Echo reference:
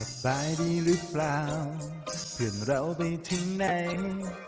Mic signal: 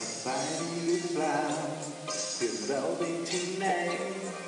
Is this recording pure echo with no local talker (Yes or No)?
Yes